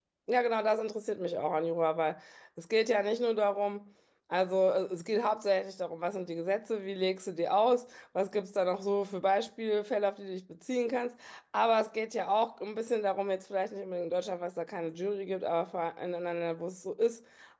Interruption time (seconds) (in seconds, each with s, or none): none